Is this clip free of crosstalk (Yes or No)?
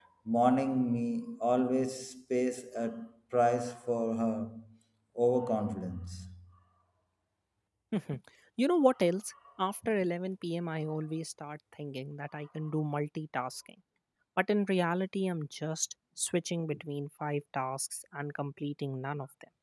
Yes